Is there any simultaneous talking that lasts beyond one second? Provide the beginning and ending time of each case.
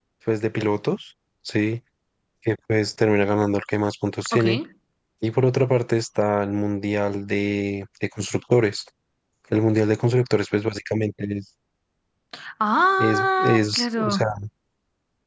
13.0-14.3

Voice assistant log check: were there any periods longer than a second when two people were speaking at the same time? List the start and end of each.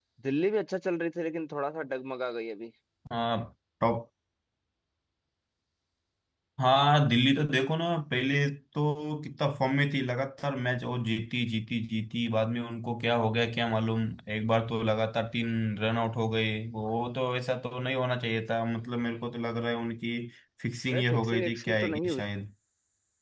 20.9-22.2

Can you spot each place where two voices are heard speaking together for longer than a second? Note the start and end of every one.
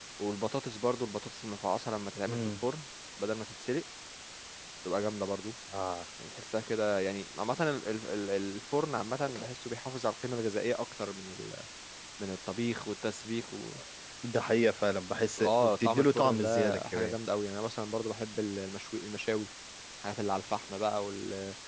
15.4-17.1

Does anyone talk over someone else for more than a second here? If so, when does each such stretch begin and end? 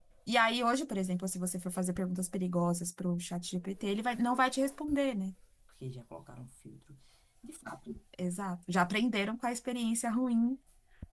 none

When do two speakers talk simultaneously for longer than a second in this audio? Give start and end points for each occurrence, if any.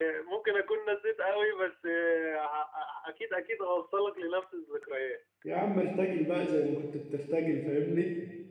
none

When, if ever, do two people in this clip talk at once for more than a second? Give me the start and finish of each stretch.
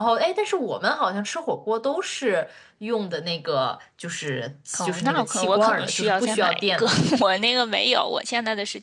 4.8-7.0

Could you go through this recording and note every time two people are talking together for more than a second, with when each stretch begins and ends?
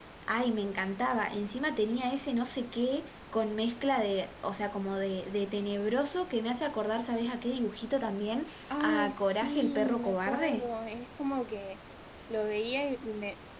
8.7-10.7

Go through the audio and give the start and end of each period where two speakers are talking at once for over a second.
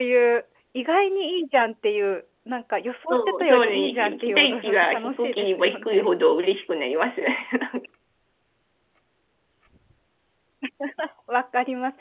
3.1-6.1

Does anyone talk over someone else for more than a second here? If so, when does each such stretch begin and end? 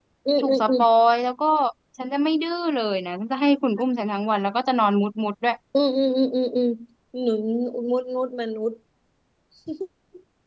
none

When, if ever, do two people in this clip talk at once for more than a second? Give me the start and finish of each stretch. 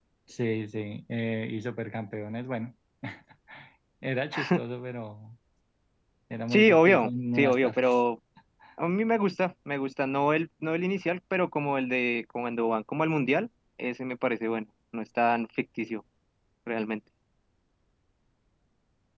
6.5-8.0

